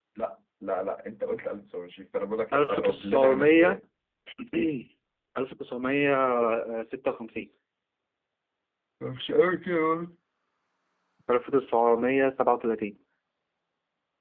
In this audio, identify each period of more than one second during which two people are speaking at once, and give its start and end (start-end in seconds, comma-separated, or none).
2.5-3.8